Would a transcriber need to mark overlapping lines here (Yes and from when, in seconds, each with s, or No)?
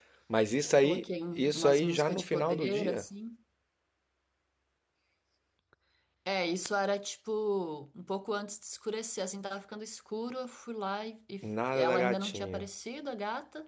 Yes, from 0.8 s